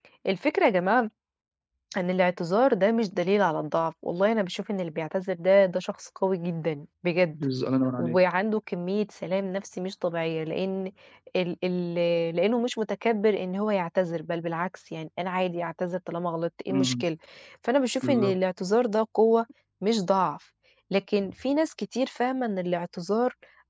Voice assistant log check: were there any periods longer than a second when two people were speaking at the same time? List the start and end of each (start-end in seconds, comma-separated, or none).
none